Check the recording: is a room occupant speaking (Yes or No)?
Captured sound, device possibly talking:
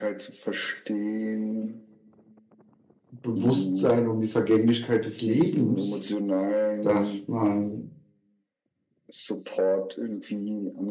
Yes